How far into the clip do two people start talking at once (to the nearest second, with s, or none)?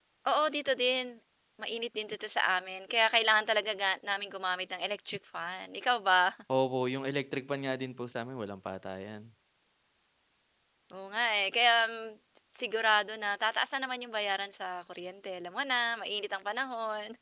none